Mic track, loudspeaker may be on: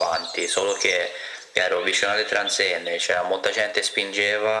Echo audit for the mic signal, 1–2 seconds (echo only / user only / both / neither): echo only